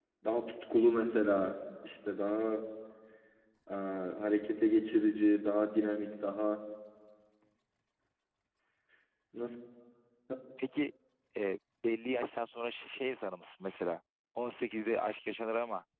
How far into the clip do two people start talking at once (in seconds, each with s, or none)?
none